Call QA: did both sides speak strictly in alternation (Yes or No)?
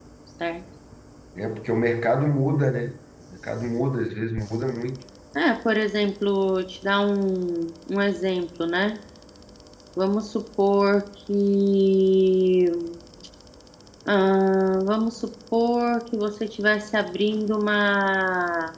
Yes